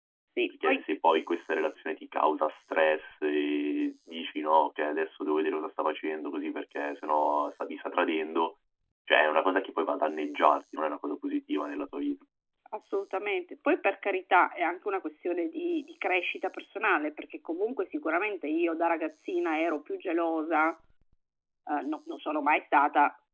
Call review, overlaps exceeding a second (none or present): none